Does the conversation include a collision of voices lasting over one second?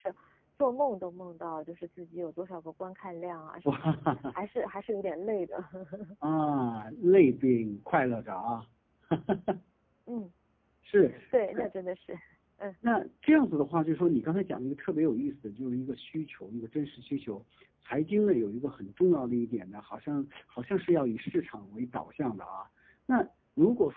No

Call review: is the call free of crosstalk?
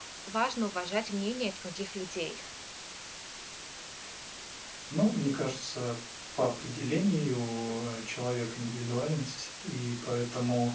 Yes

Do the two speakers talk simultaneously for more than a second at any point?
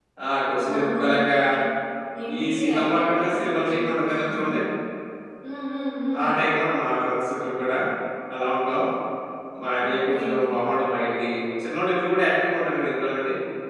Yes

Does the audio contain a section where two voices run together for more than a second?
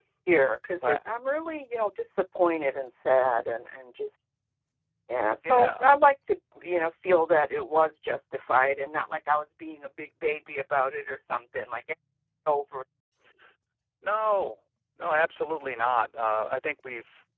No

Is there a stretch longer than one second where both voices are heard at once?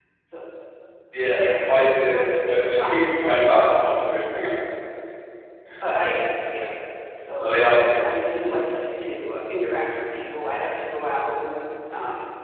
Yes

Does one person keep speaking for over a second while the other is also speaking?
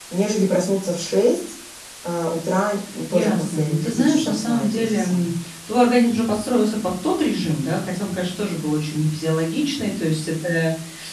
Yes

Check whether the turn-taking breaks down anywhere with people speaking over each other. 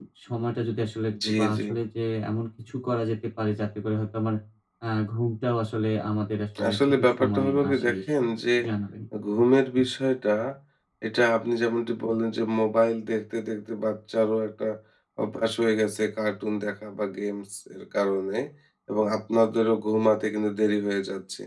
Yes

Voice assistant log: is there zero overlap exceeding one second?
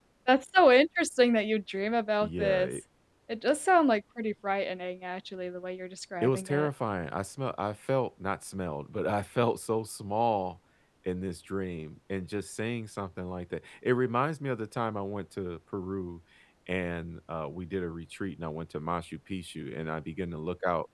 Yes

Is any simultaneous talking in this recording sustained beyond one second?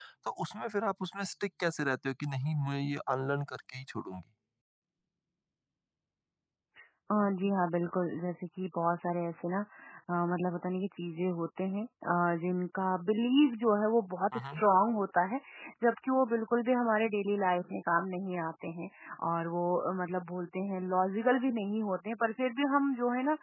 No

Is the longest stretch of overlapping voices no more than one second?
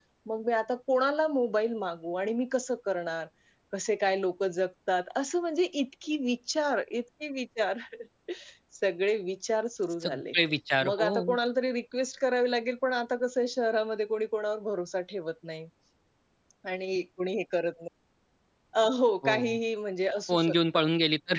Yes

